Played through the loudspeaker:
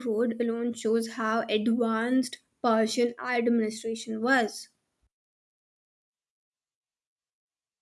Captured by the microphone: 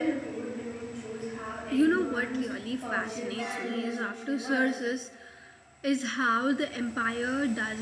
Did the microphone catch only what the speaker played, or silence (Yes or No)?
No